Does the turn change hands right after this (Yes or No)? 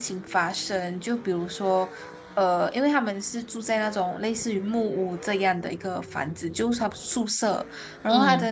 No